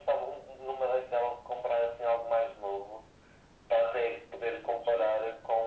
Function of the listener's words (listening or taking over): listening